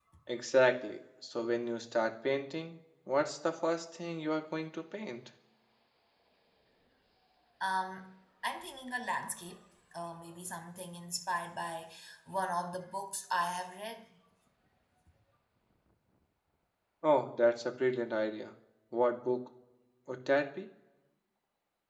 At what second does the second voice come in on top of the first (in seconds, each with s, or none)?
none